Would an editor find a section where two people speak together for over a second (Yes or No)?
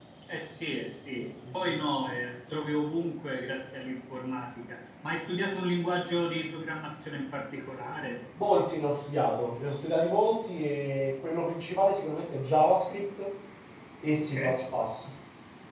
No